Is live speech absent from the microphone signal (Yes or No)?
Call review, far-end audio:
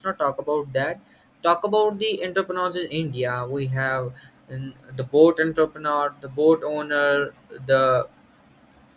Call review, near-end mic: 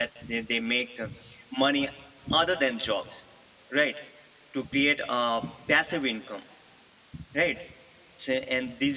No